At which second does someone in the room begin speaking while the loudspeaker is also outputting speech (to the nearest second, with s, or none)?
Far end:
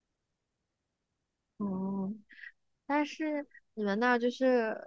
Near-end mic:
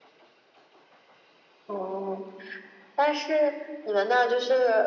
none